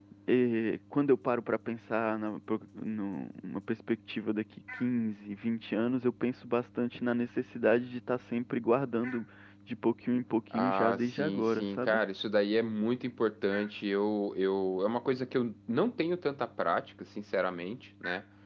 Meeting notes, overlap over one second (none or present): present